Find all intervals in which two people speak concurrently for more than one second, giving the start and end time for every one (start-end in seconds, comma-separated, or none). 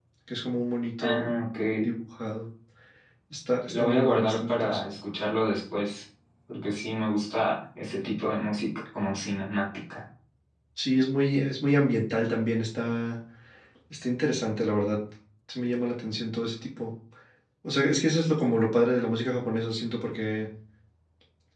3.7-4.9